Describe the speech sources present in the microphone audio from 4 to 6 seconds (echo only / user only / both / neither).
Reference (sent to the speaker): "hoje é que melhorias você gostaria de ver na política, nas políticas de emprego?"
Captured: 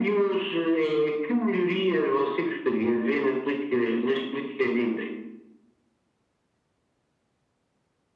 echo only